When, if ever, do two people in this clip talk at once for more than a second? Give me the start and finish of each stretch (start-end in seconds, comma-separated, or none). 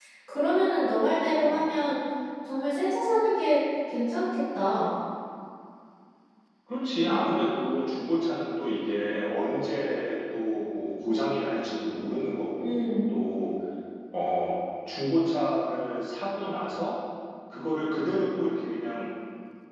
none